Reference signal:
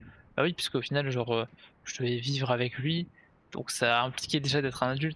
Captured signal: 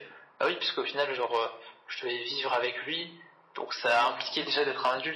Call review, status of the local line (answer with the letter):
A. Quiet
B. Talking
B